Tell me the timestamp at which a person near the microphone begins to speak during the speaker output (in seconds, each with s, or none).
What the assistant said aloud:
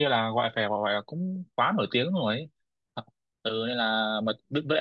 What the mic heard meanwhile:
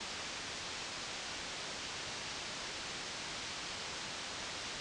none